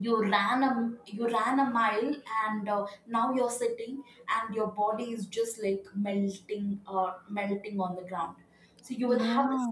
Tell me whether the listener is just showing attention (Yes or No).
Yes